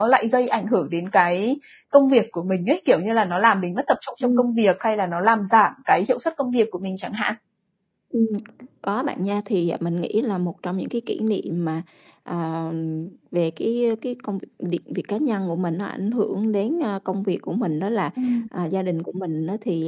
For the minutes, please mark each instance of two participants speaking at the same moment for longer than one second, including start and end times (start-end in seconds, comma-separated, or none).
none